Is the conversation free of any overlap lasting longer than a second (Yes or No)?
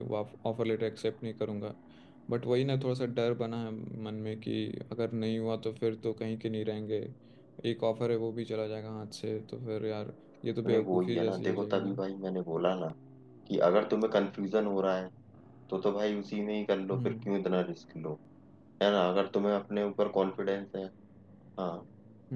No